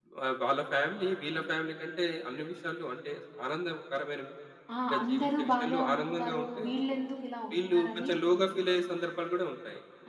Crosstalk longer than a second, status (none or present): present